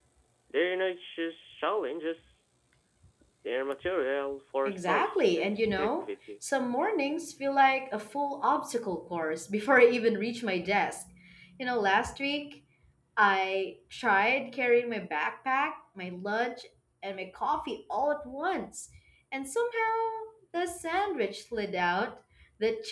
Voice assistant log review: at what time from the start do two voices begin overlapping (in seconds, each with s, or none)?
4.7 s